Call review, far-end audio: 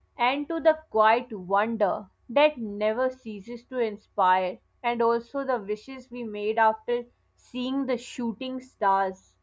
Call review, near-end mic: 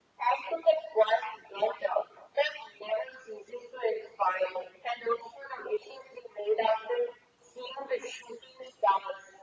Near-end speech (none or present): none